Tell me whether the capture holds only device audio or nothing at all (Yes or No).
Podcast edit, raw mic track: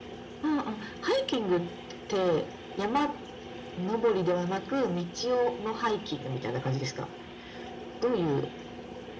Yes